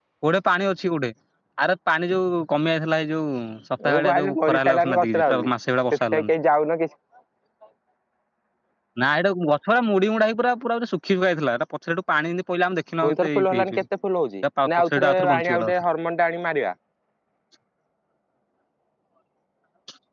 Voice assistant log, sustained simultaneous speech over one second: present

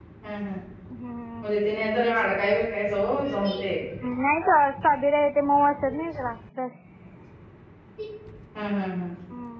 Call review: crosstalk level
none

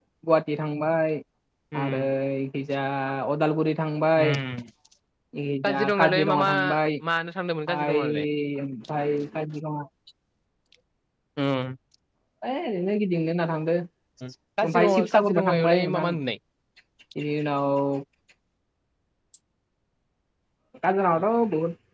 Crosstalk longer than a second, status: present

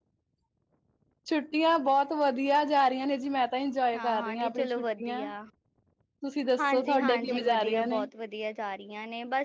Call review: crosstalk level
present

